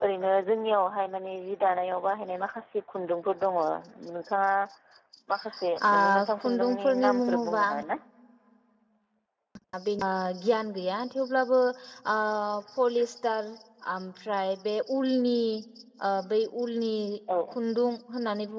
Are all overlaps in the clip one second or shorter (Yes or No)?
No